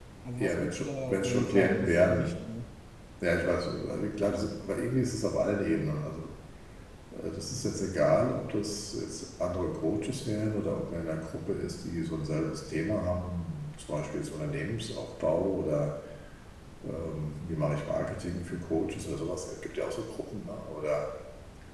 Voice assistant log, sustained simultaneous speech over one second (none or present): present